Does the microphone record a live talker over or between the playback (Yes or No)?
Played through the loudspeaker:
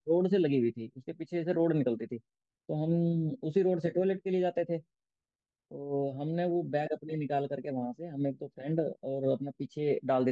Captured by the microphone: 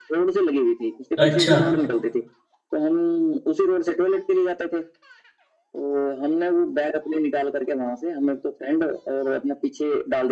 Yes